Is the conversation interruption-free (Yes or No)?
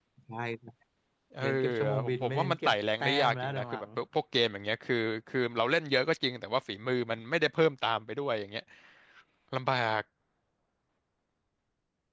No